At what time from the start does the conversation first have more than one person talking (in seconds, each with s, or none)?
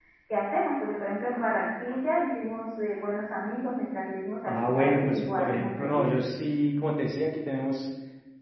4.5 s